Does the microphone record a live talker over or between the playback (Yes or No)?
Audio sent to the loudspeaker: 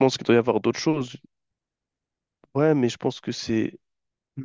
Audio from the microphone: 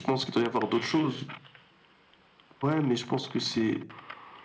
No